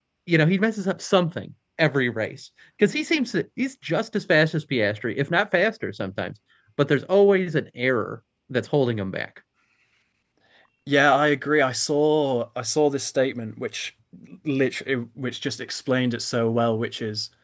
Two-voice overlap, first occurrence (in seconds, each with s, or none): none